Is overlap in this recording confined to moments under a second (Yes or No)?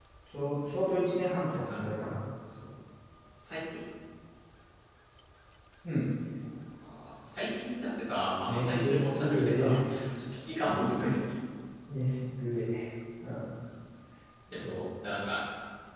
No